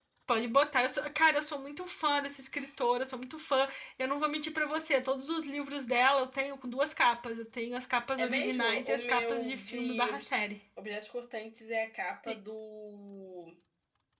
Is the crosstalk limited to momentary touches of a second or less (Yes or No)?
No